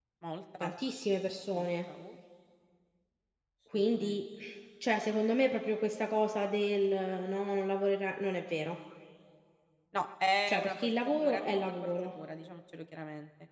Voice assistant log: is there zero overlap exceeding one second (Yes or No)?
No